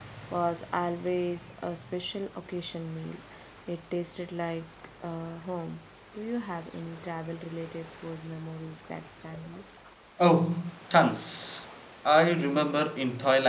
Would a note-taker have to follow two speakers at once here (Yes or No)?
No